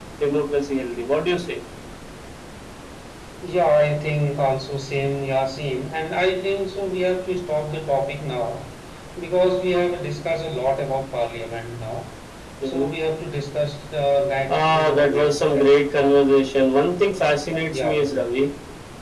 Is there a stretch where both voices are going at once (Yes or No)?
Yes